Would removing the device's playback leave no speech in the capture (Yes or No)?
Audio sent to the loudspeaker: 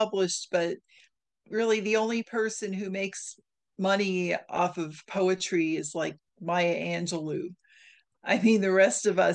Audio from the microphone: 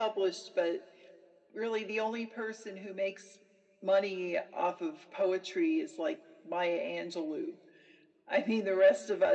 Yes